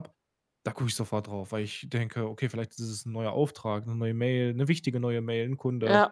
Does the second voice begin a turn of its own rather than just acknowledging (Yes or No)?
Yes